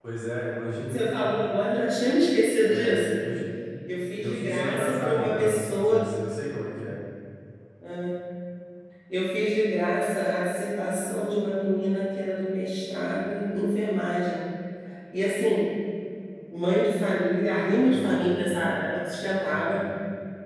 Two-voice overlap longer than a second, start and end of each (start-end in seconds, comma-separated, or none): 4.1-6.0